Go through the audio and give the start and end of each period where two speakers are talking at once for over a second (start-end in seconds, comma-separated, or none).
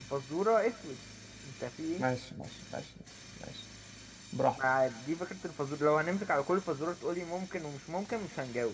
none